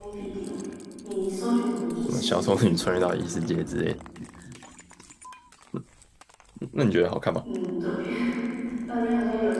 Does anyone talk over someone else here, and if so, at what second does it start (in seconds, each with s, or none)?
2.1 s